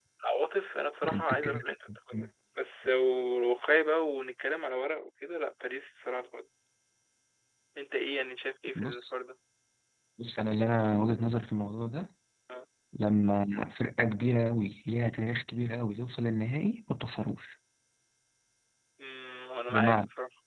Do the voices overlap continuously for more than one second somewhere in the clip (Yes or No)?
No